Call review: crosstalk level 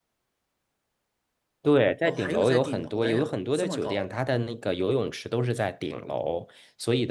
present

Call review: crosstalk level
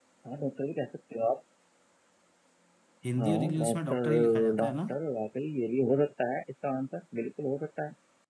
present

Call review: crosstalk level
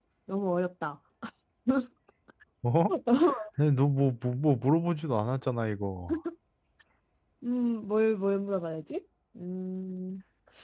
none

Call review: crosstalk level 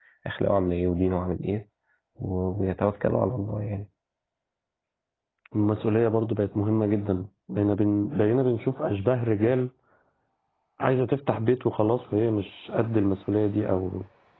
none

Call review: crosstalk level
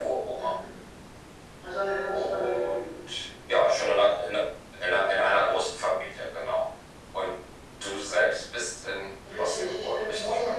present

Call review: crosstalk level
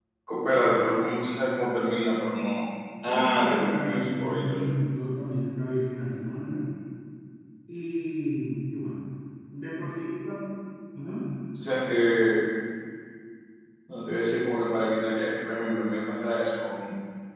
present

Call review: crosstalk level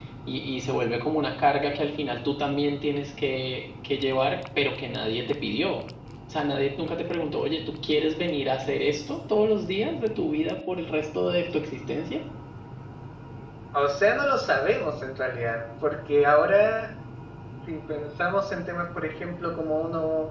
none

